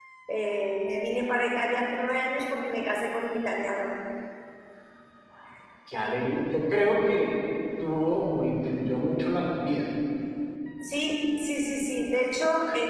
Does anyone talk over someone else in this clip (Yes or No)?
No